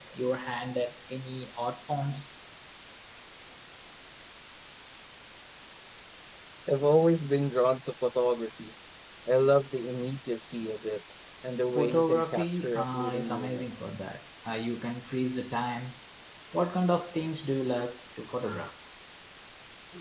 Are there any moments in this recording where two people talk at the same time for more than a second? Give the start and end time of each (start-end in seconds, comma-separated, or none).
11.8-13.7